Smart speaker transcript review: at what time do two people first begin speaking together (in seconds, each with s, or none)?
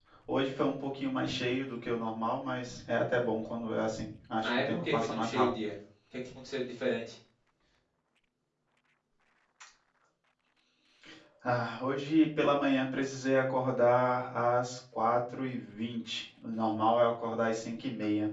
4.4 s